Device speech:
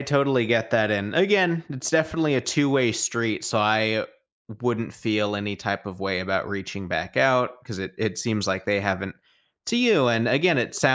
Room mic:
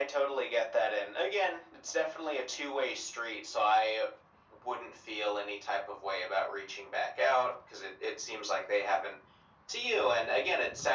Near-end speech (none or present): none